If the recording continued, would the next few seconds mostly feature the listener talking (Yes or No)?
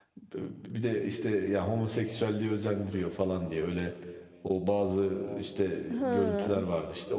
No